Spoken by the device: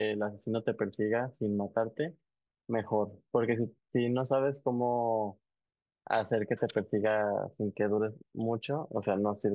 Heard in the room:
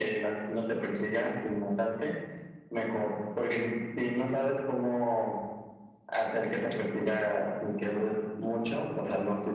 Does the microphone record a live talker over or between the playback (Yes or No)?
No